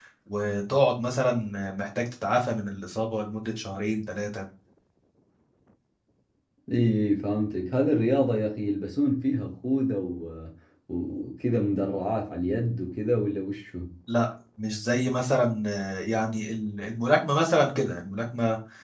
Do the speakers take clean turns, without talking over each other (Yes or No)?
Yes